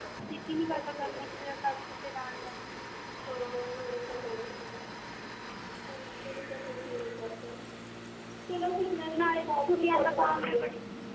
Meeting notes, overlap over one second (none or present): present